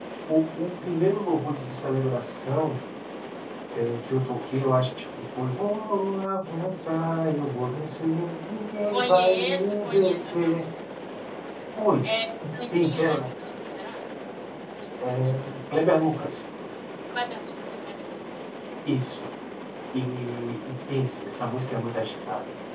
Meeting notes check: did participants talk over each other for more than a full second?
Yes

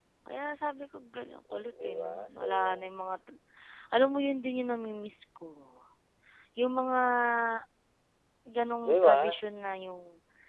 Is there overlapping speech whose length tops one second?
Yes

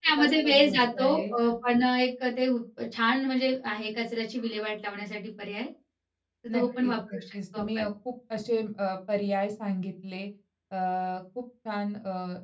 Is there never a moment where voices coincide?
No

